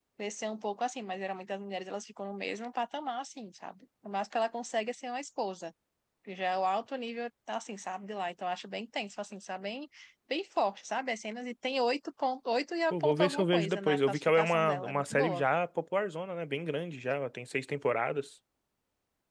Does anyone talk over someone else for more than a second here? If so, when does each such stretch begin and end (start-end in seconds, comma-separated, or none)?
12.9-15.4